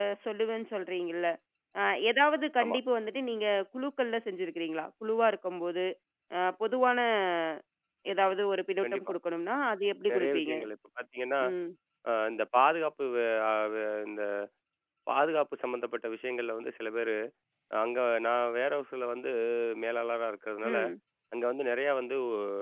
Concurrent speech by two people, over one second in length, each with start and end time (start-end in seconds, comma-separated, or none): none